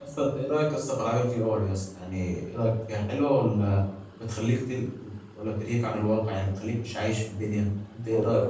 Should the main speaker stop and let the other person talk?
Yes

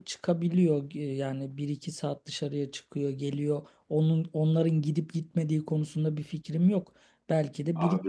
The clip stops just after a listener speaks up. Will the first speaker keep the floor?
Yes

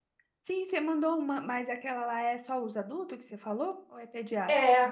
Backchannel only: No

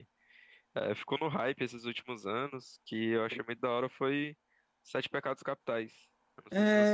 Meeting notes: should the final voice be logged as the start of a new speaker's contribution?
Yes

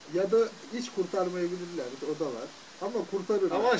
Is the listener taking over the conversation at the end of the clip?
Yes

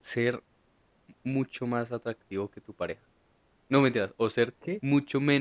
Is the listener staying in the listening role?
Yes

